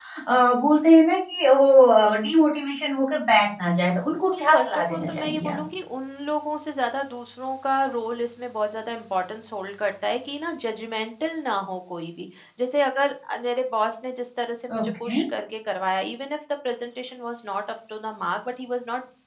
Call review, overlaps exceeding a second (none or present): present